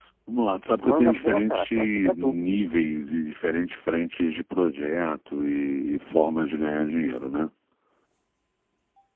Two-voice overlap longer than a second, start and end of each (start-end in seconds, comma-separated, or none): 0.8-2.4